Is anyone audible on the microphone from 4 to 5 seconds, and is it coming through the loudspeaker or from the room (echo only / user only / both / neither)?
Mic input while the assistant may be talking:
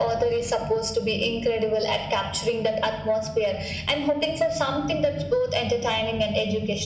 echo only